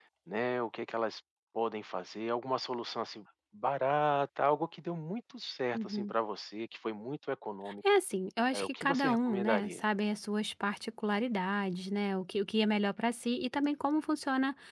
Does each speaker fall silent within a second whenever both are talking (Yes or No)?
No